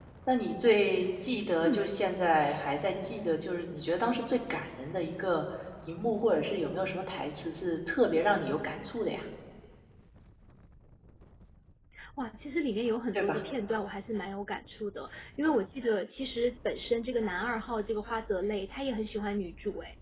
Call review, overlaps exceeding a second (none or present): none